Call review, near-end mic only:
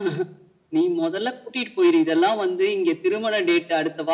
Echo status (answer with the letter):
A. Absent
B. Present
B